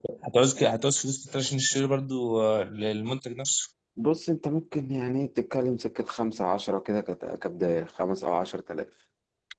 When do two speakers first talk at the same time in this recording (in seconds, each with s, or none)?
none